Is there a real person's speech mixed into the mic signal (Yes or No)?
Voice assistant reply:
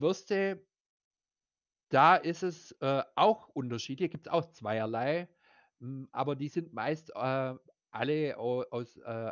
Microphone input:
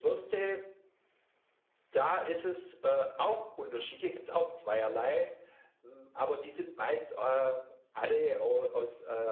No